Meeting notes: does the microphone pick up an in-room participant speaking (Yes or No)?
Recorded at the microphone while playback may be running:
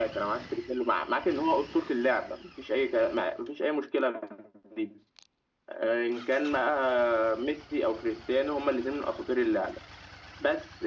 No